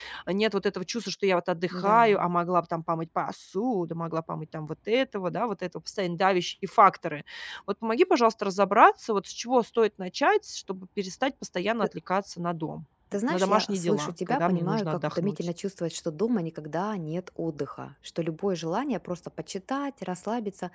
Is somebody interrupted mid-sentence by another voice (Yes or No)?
Yes